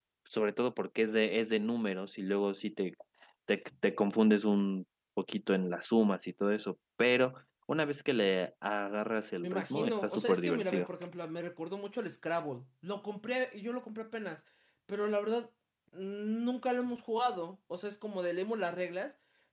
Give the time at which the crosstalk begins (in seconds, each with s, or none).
9.4 s